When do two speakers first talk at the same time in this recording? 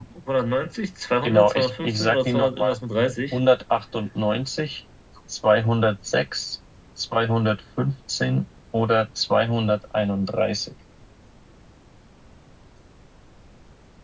1.2 s

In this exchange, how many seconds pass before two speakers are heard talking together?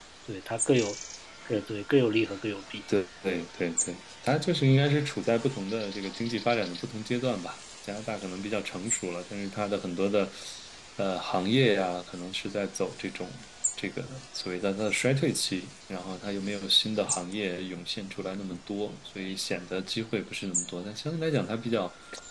none

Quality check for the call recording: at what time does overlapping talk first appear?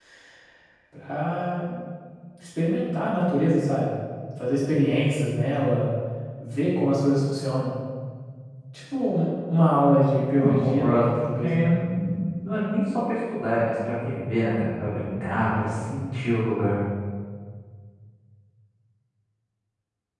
10.4 s

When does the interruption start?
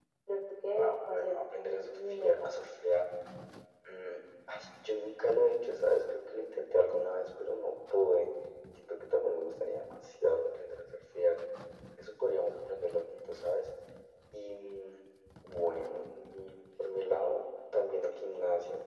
0.7 s

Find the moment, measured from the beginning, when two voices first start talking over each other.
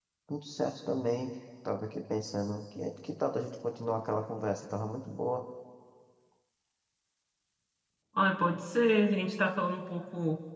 none

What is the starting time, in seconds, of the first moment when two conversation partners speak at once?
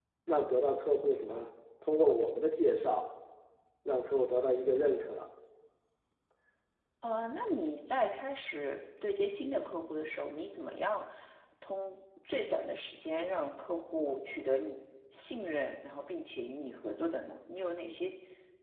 none

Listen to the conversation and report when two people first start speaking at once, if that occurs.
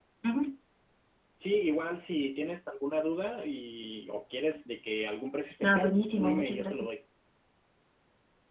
5.6 s

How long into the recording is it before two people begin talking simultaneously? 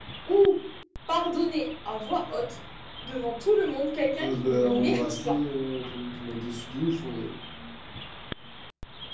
4.2 s

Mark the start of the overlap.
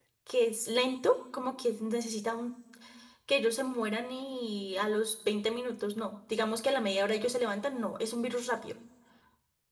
none

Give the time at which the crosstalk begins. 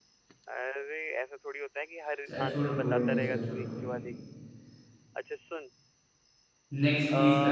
2.3 s

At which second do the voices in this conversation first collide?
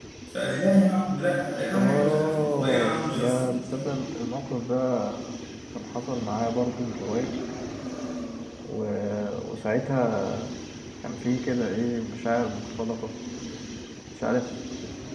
1.7 s

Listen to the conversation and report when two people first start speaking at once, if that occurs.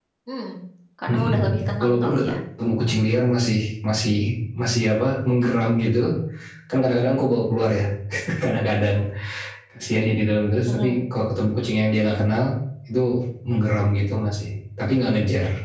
1.1 s

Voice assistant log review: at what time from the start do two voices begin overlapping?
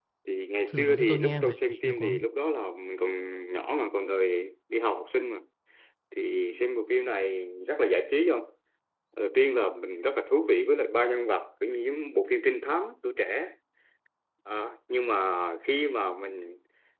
0.7 s

